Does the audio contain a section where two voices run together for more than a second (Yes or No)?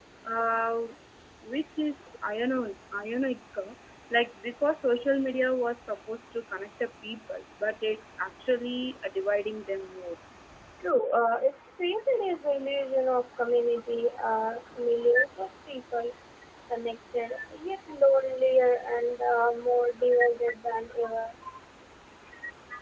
No